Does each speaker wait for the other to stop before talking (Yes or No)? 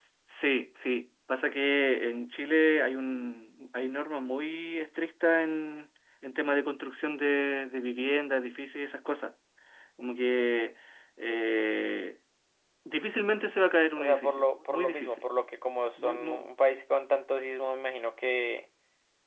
No